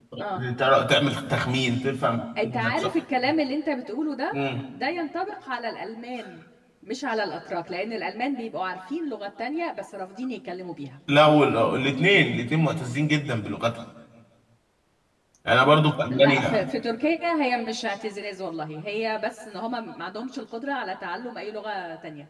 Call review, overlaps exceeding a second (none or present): none